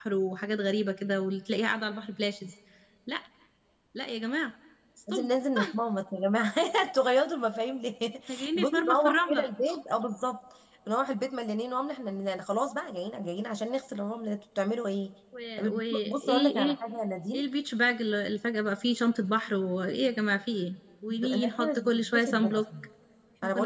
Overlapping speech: Yes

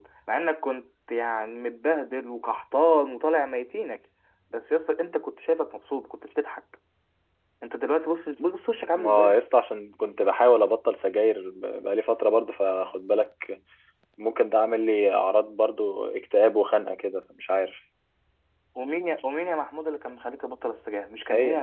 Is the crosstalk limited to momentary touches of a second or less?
Yes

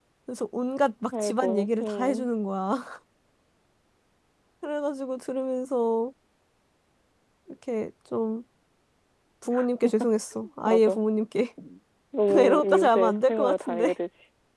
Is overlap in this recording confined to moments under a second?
No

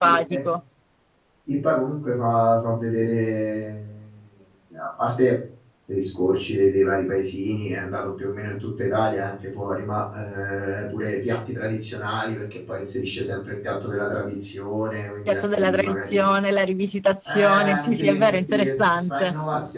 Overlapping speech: Yes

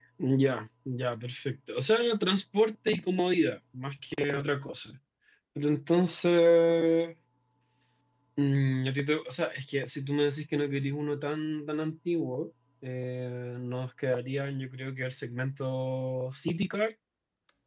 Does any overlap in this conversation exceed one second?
No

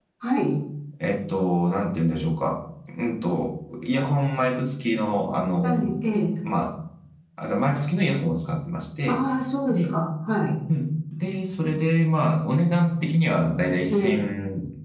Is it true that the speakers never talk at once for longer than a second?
Yes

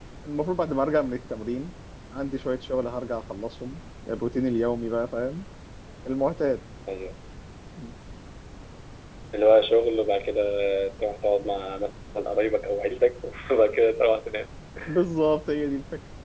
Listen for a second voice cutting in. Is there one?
No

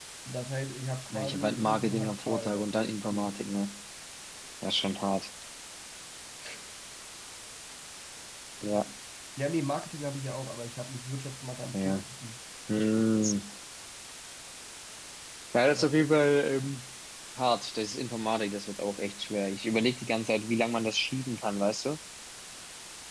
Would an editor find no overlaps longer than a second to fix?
No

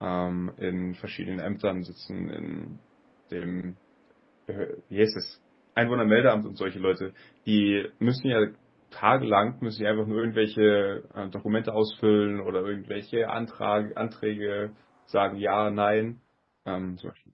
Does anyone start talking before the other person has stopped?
No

